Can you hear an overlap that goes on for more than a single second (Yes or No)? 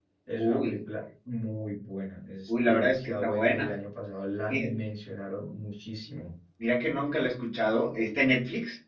Yes